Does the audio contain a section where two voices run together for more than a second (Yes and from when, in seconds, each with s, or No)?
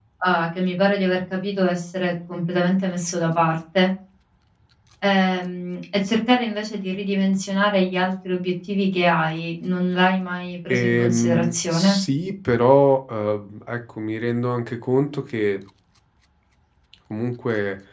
Yes, from 10.7 s